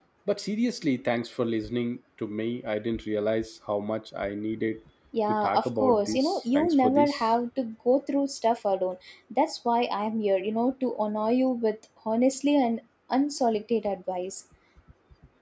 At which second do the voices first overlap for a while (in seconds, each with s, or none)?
5.4 s